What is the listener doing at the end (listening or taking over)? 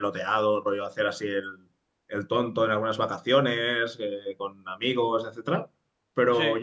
listening